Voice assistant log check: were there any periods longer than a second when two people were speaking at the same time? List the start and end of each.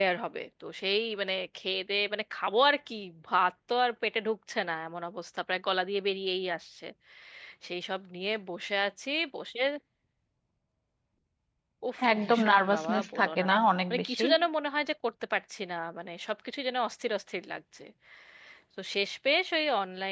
12.1-13.5

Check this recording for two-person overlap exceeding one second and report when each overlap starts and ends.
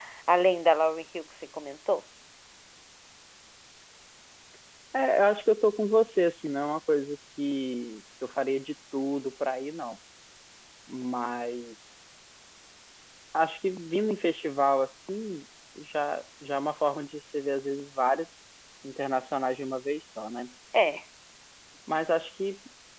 none

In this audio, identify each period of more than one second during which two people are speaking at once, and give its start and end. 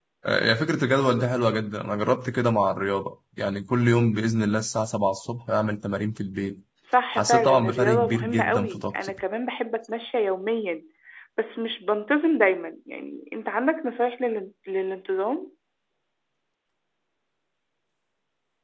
7.2-9.1

